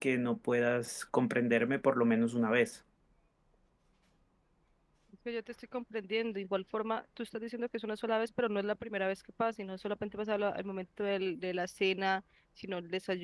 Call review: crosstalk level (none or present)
none